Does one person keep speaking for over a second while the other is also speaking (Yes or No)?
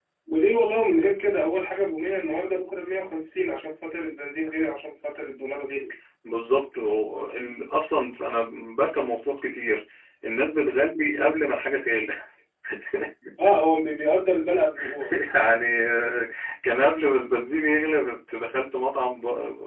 No